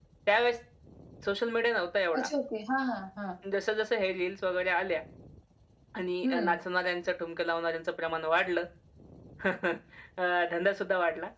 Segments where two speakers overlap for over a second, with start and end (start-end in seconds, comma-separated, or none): none